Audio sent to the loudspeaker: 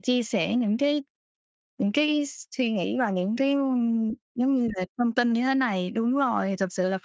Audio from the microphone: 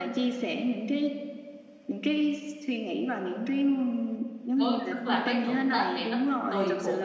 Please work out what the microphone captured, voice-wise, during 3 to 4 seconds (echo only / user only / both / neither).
echo only